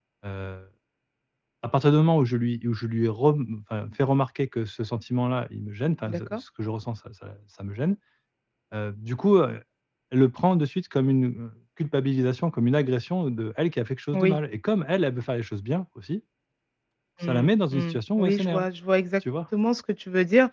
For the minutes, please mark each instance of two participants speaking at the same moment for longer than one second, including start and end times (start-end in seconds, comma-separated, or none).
17.2-18.7